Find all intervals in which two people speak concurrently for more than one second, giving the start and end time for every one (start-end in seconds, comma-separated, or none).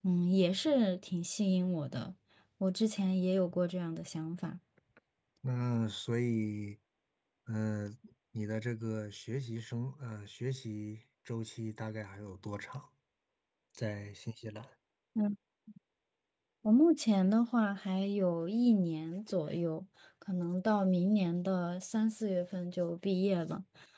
none